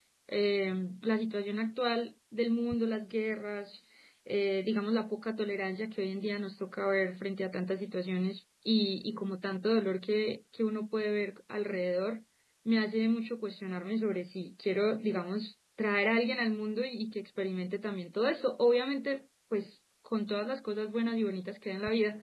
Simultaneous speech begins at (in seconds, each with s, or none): none